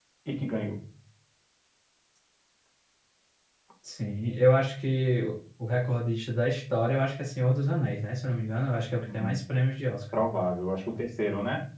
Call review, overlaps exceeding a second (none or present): none